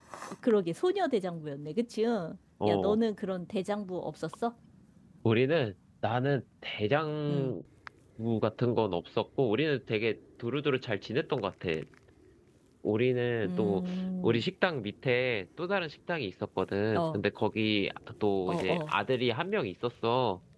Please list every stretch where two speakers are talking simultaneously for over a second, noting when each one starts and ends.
none

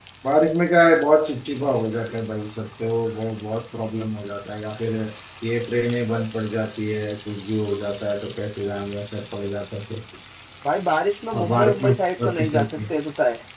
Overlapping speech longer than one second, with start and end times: 11.3-12.7

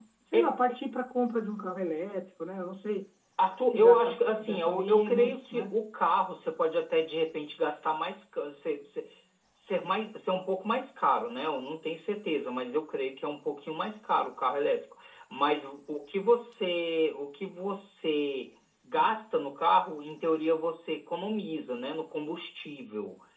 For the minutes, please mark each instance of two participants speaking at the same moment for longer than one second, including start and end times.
3.6-5.8

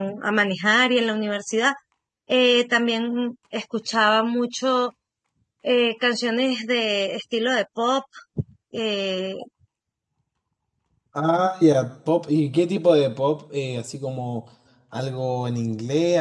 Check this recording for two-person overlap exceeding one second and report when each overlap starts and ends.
none

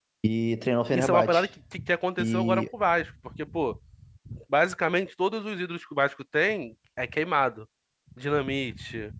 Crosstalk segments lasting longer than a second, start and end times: none

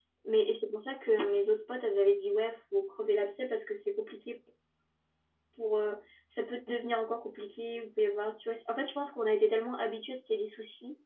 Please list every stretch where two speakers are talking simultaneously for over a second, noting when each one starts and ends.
none

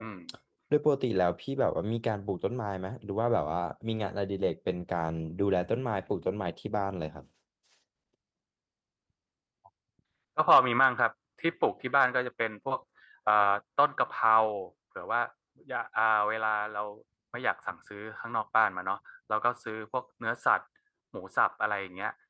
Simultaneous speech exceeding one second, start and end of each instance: none

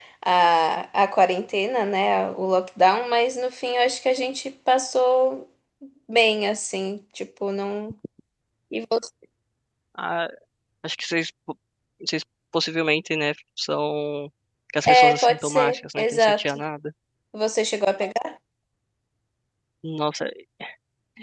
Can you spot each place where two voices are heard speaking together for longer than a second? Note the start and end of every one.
14.9-16.6

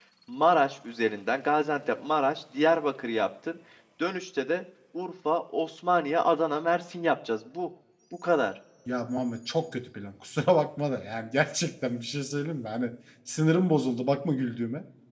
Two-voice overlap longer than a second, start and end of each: none

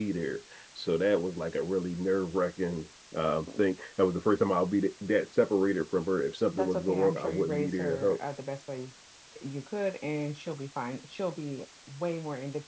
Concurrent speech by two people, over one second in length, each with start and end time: 6.5-8.2

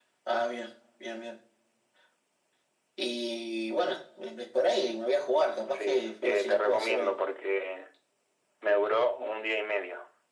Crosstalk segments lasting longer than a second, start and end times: 5.7-7.1

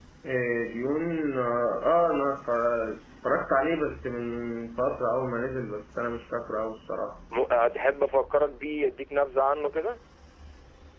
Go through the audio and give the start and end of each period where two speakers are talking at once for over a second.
none

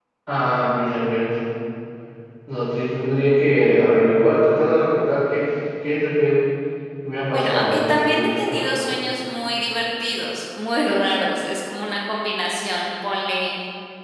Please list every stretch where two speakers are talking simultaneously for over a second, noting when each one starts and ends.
7.3-8.8

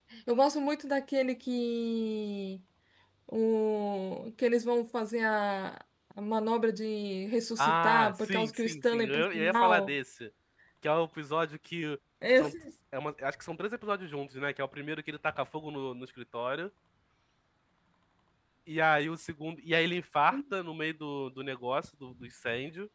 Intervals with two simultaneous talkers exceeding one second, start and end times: 7.6-9.9

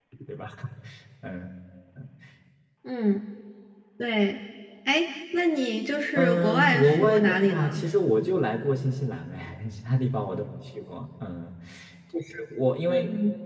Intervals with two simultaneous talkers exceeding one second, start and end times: 6.2-7.8

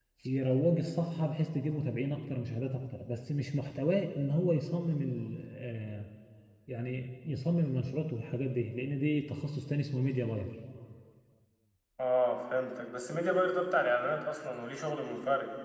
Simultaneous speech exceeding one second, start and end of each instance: none

